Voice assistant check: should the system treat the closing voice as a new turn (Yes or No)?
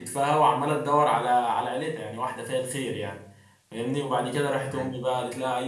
No